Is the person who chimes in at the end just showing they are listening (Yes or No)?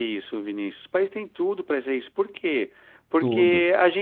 Yes